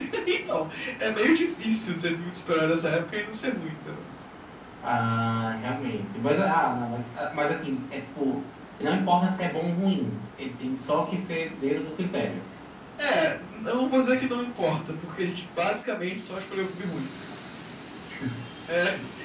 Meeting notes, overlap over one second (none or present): none